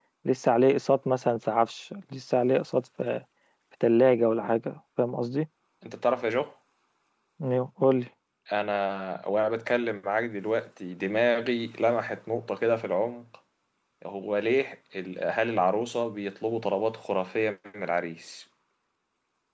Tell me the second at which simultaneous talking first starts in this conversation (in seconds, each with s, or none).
none